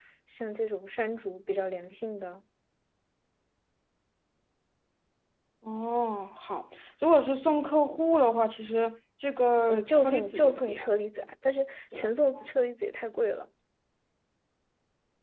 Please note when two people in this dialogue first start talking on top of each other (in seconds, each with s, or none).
9.6 s